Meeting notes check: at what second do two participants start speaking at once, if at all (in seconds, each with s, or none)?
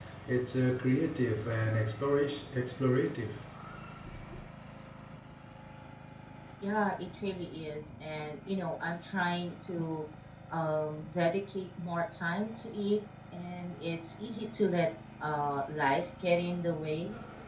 none